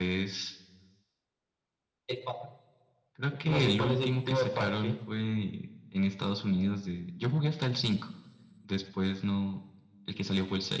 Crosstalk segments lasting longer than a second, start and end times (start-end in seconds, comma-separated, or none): 3.4-4.9